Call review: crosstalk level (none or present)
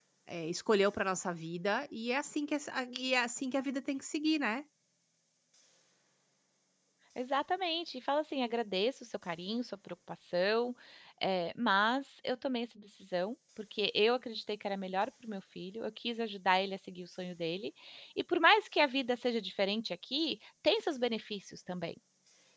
none